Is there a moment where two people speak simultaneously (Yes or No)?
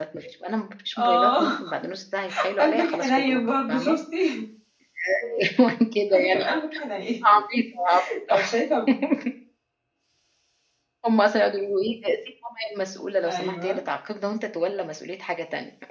Yes